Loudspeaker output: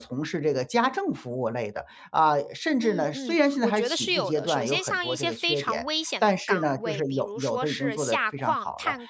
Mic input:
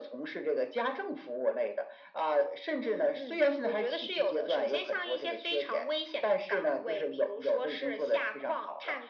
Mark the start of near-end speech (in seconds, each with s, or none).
none